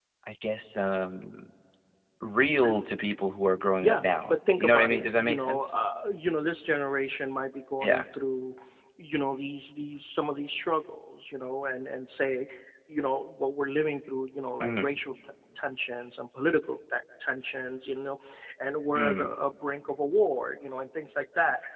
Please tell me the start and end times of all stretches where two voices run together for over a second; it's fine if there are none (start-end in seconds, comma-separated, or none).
3.8-5.6